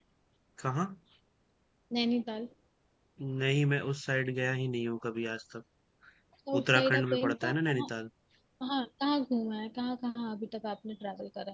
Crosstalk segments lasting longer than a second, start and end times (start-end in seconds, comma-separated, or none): 6.6-7.9